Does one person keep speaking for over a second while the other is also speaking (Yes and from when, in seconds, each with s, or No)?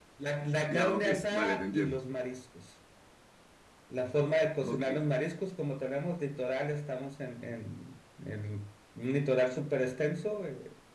Yes, from 0.7 s